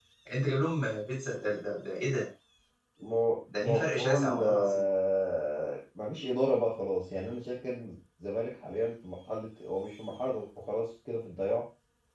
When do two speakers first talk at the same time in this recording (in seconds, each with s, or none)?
3.6 s